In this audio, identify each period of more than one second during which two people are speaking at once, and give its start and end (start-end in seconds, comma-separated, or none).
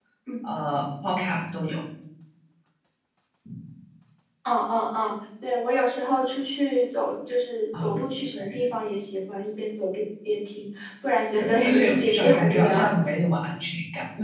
11.4-12.9